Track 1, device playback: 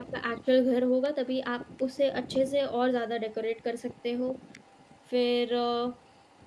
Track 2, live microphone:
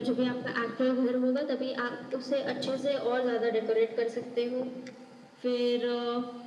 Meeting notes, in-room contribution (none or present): none